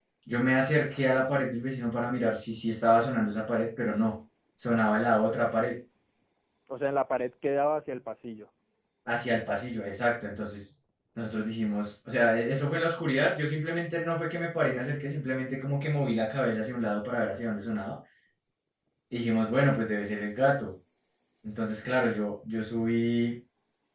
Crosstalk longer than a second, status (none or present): none